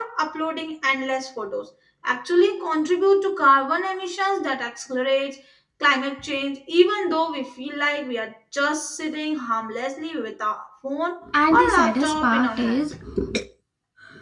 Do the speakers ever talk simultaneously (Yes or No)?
Yes